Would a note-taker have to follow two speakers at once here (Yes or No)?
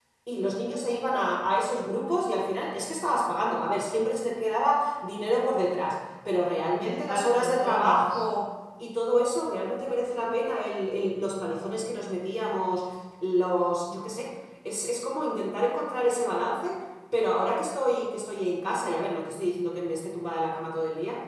Yes